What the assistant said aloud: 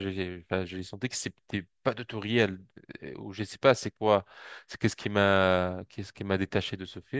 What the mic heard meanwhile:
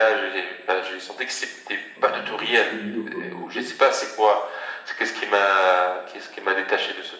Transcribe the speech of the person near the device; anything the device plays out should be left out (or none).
on va dire, tribus ou communautés.